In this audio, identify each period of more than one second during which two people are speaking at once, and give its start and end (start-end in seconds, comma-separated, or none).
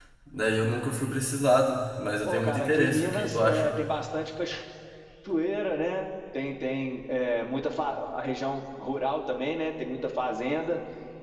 2.2-3.8